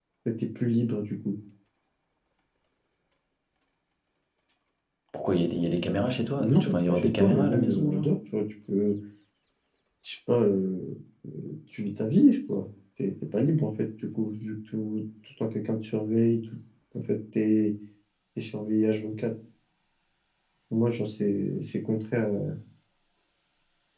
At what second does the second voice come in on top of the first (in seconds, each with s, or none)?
6.4 s